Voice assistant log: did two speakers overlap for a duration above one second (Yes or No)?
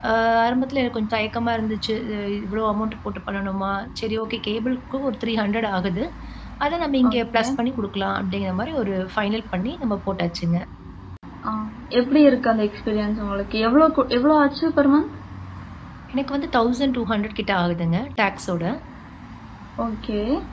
No